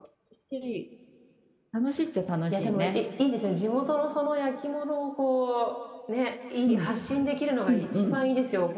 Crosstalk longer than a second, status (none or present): none